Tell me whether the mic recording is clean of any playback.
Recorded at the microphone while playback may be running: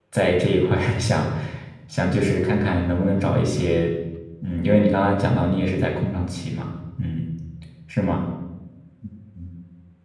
Yes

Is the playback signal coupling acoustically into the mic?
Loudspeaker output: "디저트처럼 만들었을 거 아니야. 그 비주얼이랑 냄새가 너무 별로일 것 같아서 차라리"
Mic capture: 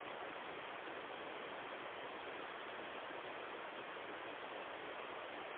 No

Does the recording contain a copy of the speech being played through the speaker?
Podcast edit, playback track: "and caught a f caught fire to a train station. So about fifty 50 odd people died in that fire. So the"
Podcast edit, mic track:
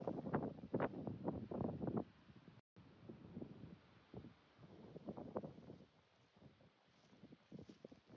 No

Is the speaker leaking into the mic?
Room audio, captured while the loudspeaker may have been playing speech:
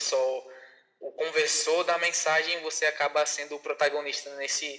Yes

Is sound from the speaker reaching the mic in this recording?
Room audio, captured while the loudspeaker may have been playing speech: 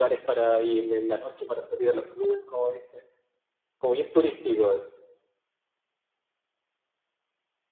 Yes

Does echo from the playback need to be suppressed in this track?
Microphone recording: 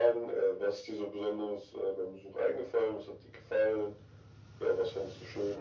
Yes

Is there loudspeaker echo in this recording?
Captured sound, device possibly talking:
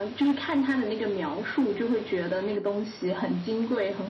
Yes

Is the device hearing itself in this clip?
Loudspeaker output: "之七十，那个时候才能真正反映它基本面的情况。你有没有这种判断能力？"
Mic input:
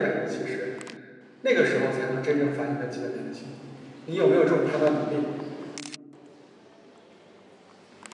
Yes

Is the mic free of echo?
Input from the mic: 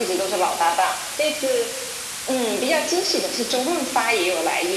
No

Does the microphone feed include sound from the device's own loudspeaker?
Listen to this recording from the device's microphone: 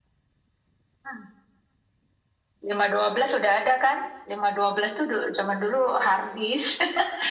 Yes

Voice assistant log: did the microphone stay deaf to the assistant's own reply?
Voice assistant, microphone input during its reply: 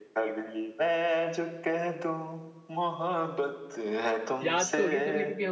No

